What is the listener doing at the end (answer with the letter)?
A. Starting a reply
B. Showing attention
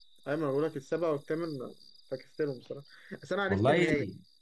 B